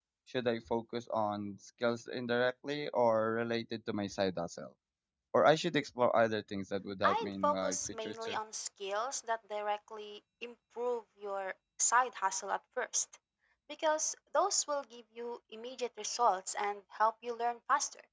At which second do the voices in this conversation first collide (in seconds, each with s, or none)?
7.0 s